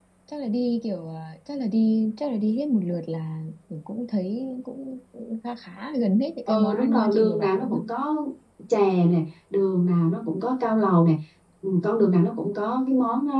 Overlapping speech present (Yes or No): Yes